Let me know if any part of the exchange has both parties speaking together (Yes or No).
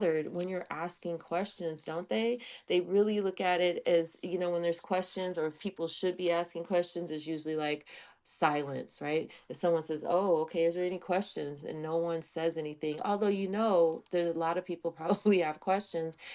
No